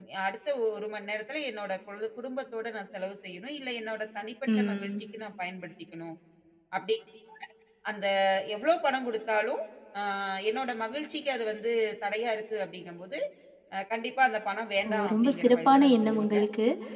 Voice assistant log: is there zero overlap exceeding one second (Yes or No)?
No